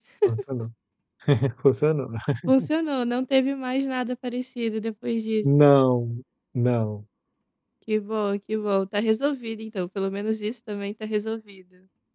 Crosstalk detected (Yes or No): No